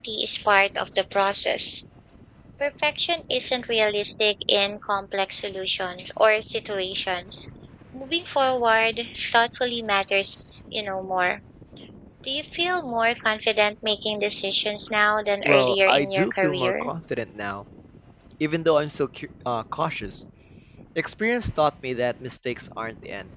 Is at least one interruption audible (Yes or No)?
Yes